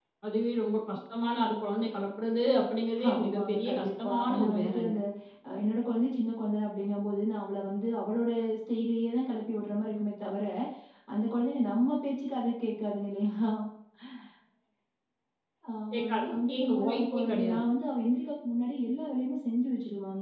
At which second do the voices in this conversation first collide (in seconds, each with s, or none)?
3.1 s